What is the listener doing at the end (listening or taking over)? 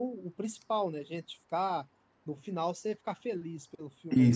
taking over